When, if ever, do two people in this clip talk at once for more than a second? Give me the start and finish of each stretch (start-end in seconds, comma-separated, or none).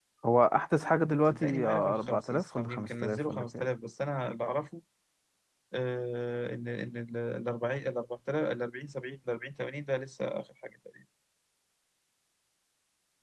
1.3-3.7